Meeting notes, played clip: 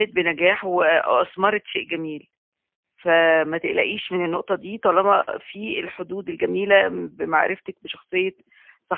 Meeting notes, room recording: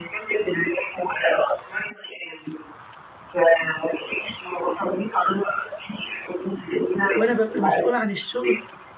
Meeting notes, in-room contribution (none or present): present